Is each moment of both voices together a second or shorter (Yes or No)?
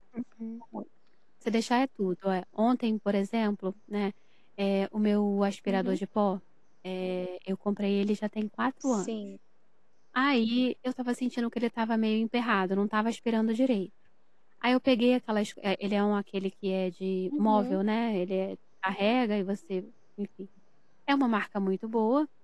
Yes